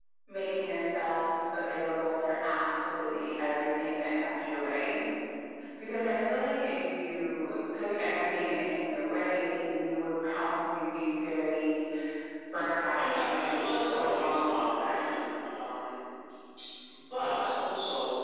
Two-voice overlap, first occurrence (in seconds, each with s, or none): 12.9 s